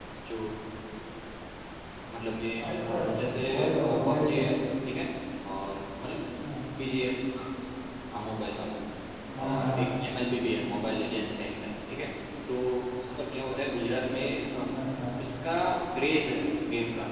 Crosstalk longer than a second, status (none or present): present